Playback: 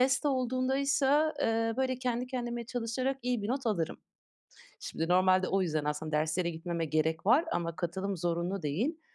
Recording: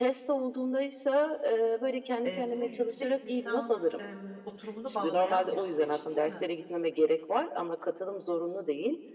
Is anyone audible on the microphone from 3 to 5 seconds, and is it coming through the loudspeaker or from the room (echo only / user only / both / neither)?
both